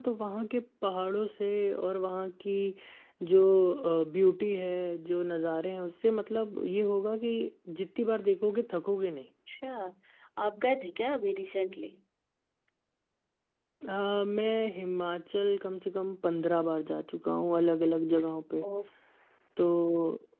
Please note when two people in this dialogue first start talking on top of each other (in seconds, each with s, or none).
none